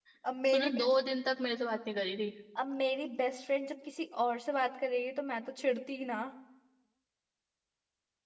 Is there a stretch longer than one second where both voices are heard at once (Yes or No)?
No